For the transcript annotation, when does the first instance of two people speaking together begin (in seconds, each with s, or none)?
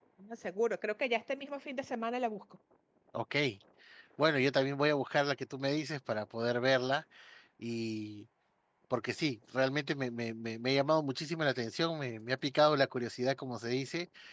none